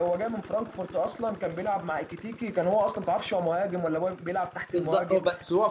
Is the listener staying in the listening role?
No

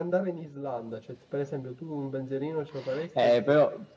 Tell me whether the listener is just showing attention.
No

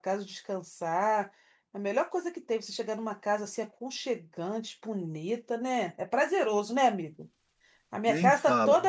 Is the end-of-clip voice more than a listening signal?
No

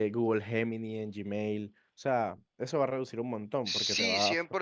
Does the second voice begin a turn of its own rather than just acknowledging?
Yes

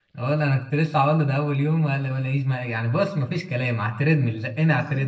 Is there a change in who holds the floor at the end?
Yes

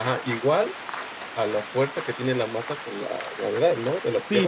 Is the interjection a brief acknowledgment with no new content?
No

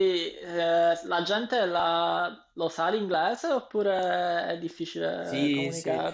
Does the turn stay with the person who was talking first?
No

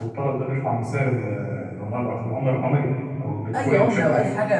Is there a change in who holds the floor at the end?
Yes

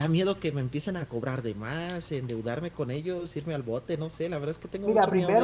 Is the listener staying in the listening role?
No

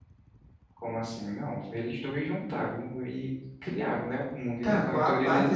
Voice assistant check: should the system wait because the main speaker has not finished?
No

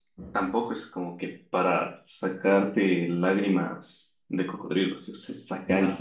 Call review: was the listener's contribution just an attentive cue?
No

